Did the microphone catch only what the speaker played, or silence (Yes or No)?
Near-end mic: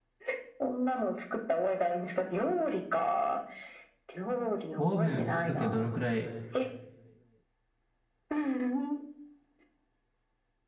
No